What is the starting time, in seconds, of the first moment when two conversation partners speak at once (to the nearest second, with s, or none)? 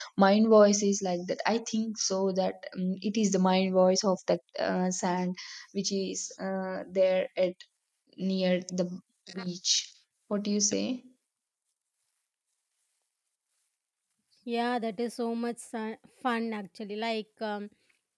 none